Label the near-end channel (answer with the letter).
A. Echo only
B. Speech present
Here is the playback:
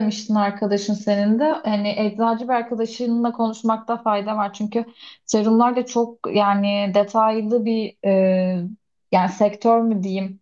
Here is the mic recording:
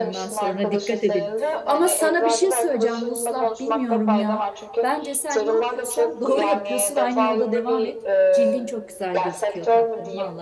B